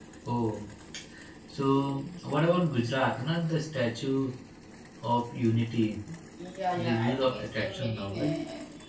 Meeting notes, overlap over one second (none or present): present